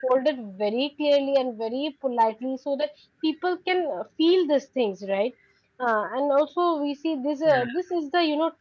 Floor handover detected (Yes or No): No